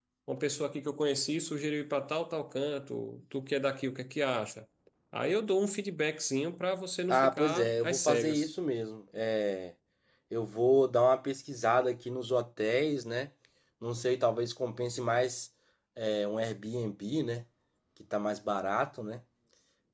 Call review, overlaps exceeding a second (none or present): present